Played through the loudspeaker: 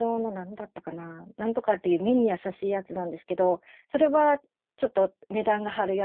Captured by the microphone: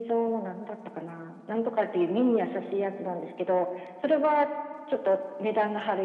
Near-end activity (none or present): none